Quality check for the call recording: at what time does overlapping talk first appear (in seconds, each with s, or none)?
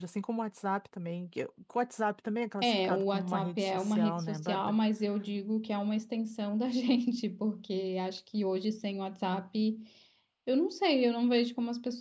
2.6 s